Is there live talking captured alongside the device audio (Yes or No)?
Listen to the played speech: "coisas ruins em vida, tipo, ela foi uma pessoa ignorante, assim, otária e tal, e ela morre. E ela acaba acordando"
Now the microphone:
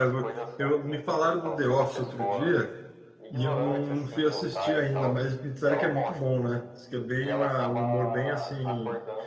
Yes